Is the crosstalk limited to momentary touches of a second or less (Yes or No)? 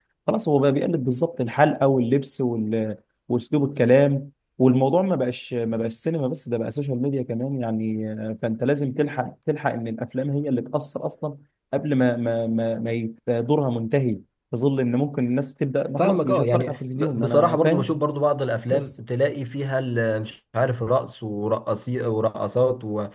No